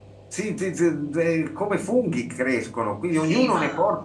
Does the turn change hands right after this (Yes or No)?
No